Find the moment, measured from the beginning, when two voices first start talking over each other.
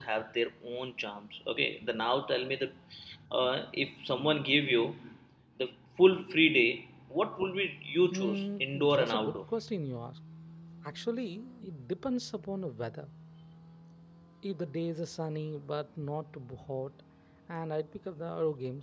8.1 s

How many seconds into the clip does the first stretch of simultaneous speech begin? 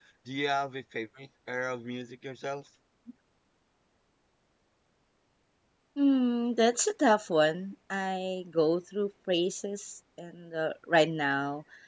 none

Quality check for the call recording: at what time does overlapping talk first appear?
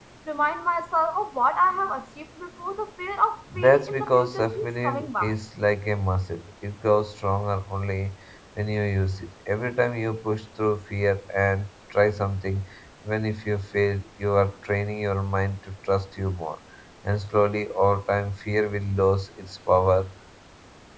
3.5 s

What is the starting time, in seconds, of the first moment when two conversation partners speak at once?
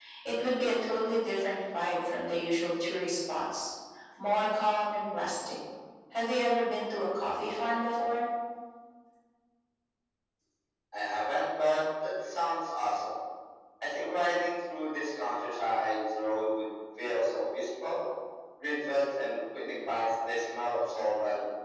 none

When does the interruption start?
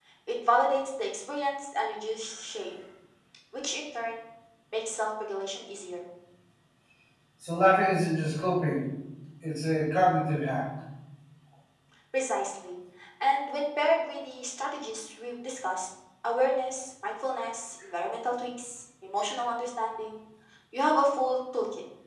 none

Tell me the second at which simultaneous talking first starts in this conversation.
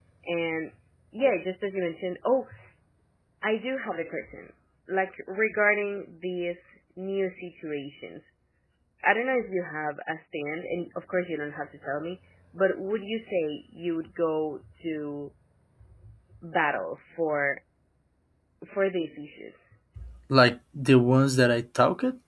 none

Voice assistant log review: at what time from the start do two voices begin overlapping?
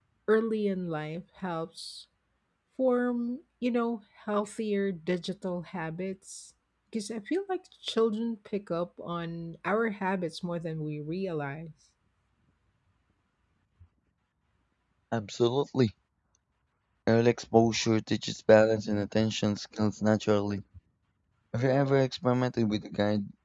none

